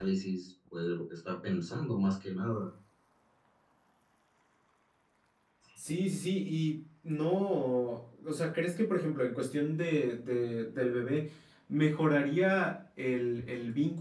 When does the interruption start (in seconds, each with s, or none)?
none